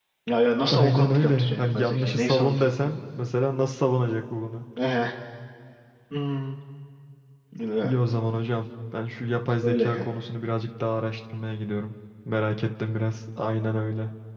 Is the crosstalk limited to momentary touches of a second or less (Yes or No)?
No